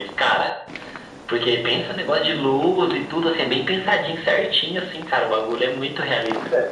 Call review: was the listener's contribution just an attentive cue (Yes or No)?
No